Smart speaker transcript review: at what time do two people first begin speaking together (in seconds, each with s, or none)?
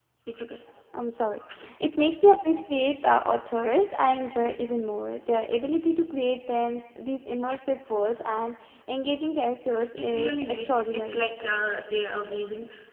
10.0 s